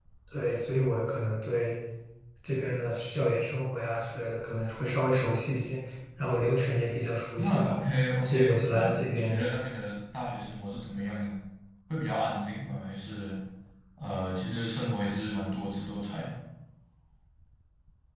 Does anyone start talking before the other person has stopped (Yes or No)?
Yes